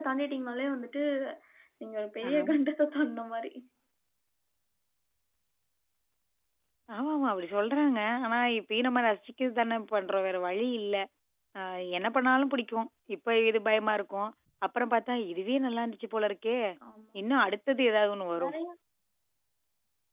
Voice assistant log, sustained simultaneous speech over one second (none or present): none